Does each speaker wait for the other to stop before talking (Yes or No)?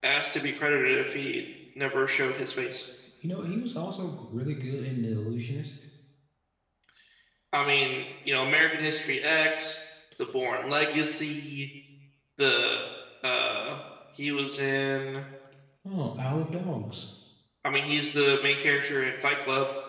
Yes